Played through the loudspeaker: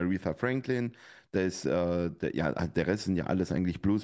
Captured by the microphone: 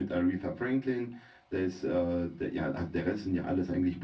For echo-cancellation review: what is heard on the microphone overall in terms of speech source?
echo only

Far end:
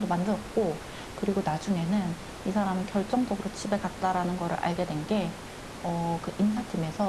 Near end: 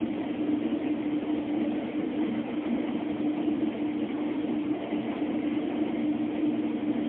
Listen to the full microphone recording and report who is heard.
neither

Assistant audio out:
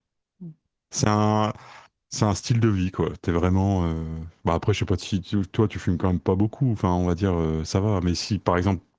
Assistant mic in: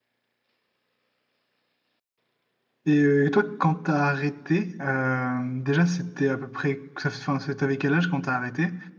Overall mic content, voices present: user only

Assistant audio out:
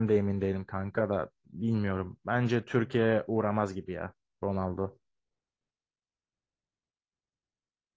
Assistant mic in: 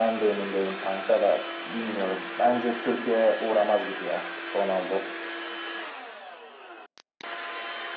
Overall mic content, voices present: echo only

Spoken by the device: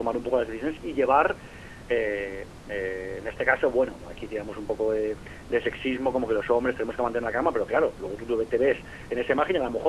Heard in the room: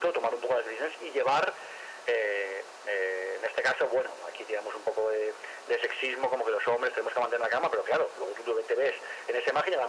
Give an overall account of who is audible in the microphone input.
echo only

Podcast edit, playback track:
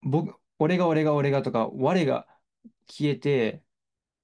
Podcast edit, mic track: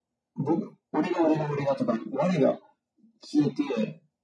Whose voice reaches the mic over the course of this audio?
echo only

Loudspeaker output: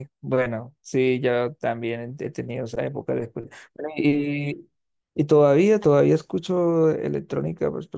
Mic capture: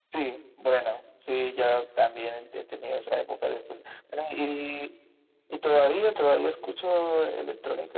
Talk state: echo only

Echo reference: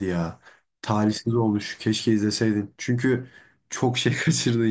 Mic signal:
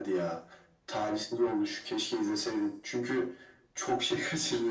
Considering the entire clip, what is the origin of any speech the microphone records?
echo only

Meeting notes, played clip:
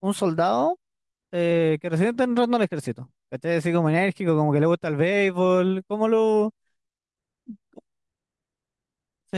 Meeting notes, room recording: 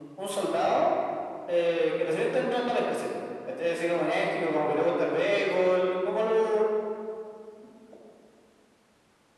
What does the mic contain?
echo only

